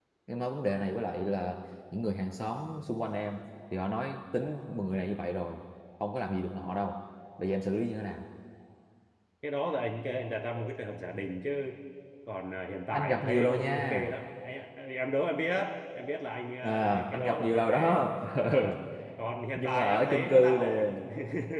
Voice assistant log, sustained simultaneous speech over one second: present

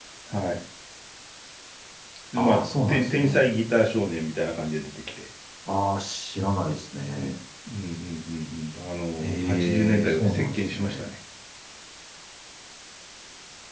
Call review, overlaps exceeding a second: present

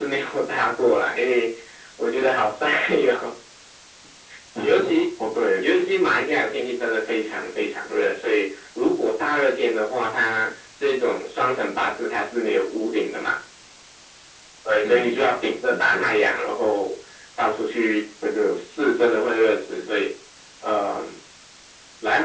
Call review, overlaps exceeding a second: none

